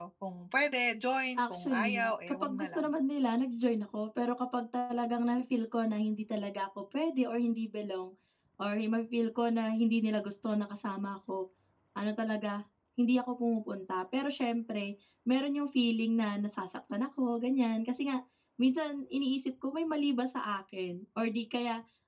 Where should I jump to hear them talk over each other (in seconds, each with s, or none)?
1.4 s